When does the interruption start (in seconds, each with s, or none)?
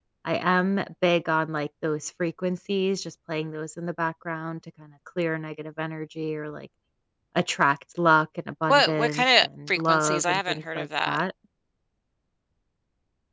8.7 s